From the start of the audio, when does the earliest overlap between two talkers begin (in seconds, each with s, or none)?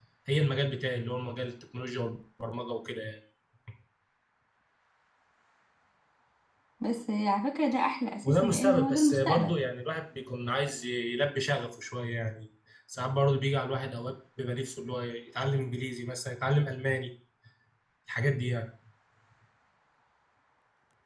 8.2 s